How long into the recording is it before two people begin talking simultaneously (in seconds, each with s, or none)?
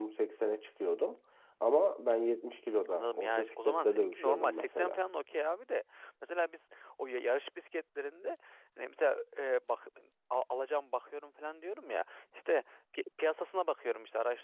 2.9 s